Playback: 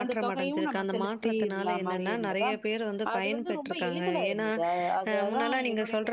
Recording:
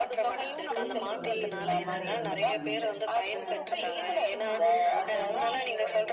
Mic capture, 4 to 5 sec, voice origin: both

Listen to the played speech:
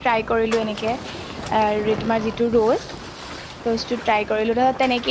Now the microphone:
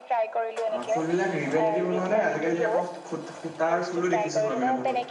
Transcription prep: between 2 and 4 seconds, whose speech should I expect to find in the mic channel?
both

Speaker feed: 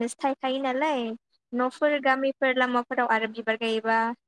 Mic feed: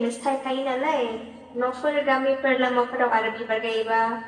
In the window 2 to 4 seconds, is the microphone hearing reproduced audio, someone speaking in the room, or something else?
echo only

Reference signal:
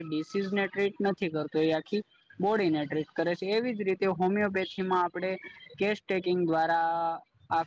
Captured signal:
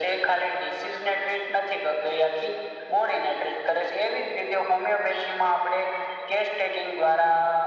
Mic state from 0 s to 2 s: echo only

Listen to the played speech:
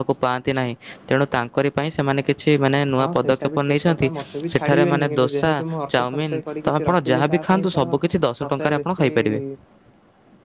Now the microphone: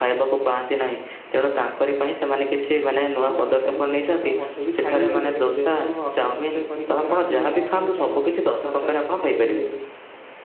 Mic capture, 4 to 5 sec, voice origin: echo only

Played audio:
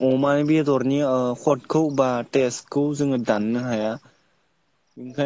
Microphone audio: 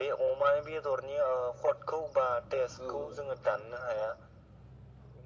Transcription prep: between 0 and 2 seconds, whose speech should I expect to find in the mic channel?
echo only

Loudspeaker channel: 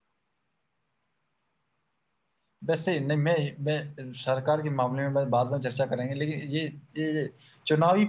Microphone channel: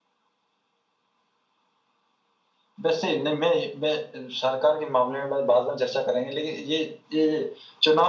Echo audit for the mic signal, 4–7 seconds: echo only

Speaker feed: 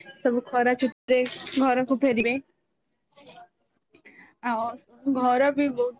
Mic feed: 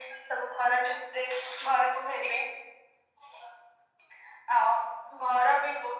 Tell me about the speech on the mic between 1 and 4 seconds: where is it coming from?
echo only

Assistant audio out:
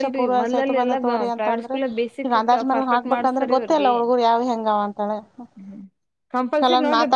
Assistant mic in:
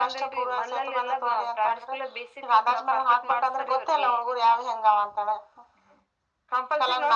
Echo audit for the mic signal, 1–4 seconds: echo only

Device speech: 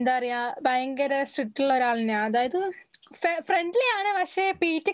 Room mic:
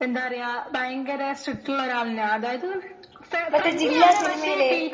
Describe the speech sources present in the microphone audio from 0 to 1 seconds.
echo only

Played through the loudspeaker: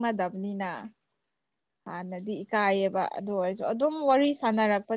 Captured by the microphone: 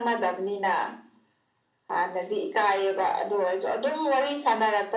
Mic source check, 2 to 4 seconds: echo only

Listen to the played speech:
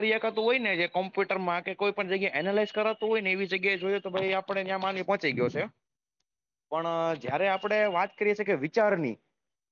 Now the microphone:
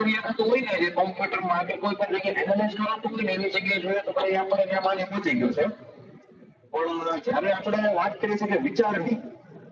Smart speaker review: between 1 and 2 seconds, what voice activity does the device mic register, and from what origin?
echo only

